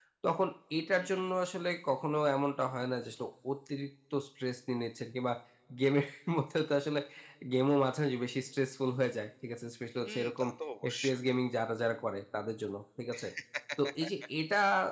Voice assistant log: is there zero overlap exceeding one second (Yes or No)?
Yes